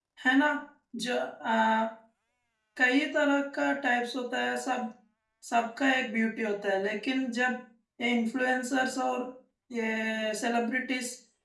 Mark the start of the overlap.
none

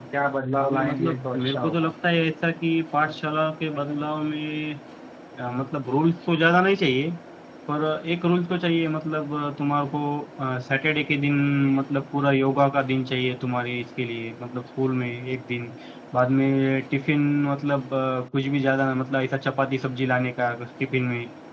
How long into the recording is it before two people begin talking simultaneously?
1 s

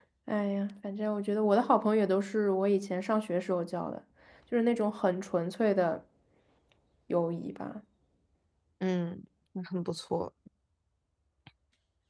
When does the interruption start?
none

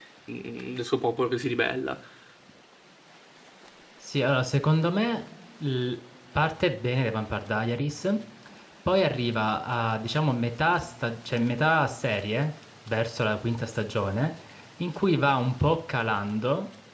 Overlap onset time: none

